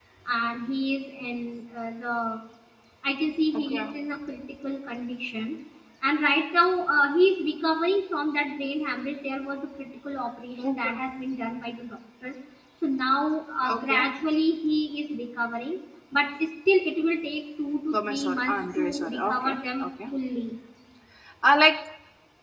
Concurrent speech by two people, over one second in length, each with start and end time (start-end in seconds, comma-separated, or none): 17.9-19.9